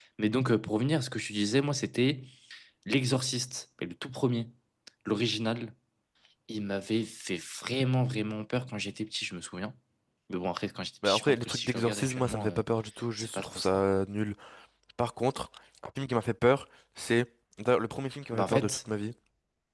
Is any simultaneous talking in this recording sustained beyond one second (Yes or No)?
Yes